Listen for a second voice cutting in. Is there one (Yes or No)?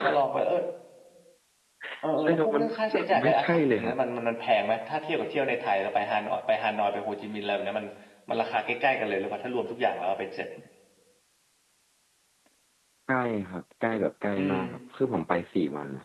Yes